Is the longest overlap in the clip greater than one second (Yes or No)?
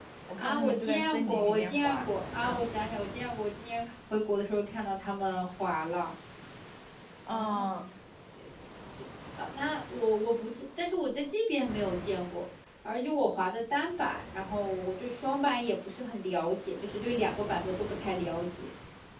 Yes